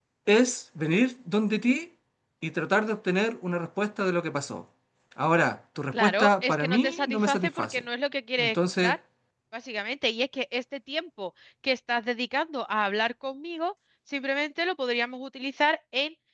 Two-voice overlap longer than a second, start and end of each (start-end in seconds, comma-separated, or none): 5.9-7.8